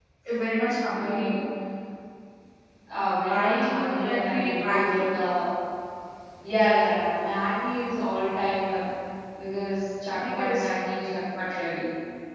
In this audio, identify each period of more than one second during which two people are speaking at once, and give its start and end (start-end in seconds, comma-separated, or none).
3.3-5.0